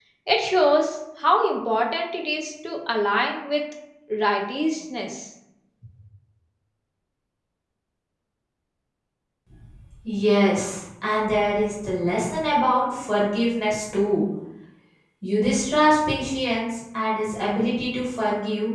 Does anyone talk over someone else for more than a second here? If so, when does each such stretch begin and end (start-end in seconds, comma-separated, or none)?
none